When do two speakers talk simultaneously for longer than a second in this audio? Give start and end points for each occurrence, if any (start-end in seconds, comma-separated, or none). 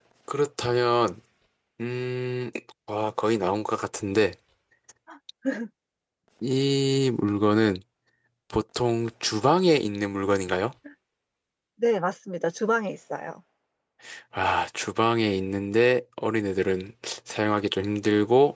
none